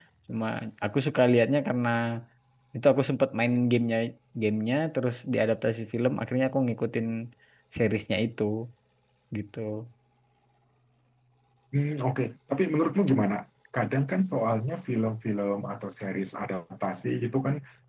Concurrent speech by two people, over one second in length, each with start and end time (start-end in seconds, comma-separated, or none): none